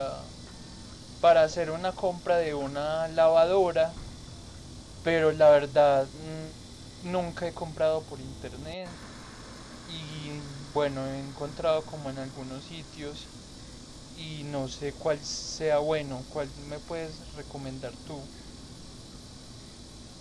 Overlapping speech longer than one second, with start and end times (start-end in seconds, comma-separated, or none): none